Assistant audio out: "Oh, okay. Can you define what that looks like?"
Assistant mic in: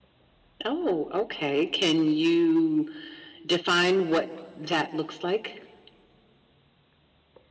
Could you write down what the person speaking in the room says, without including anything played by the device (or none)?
none